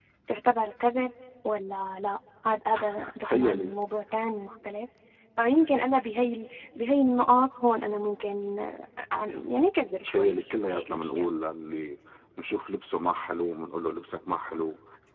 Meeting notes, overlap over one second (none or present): present